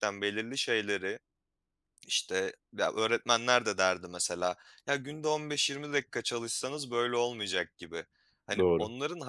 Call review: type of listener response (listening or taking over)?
listening